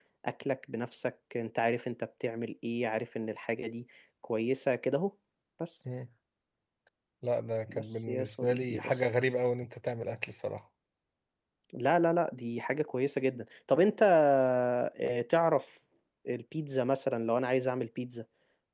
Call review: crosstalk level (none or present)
present